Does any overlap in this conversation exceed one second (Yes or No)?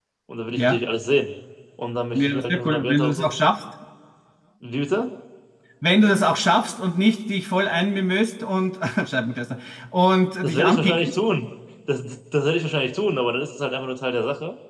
Yes